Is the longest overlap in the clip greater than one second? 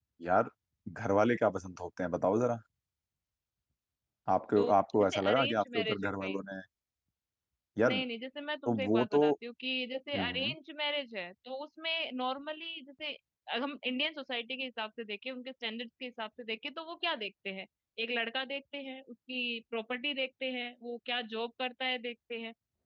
Yes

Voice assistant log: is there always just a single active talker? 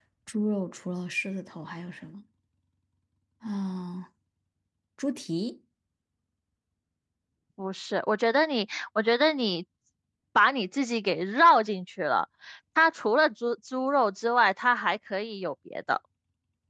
Yes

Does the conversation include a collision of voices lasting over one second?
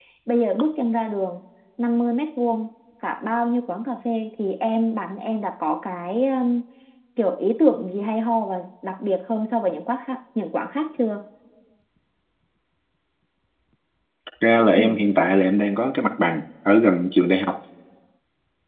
No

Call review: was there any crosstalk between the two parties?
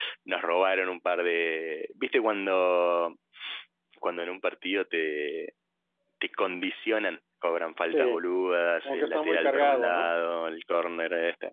Yes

